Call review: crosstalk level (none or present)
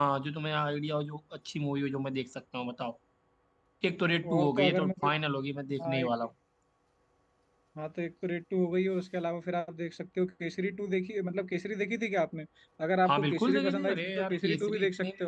present